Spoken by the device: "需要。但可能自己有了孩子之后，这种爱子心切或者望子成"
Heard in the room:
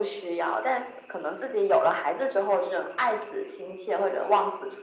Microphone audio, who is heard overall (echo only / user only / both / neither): echo only